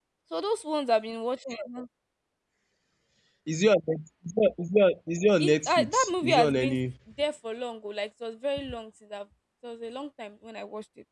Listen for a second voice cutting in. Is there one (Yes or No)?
Yes